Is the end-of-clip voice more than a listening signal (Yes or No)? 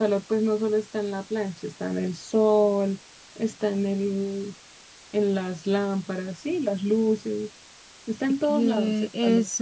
Yes